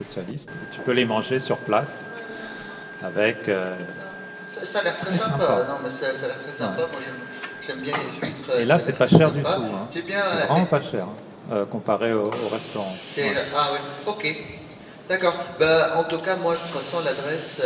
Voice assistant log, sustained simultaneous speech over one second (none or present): present